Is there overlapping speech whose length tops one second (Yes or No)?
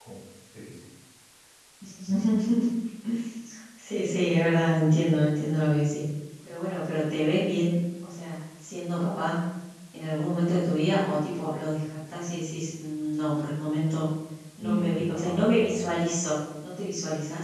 Yes